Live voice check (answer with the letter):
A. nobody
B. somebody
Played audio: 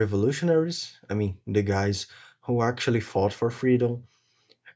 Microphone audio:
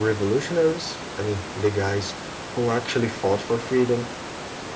A